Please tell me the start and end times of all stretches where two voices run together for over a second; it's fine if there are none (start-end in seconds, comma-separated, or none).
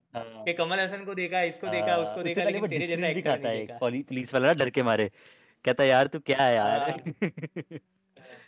1.7-3.7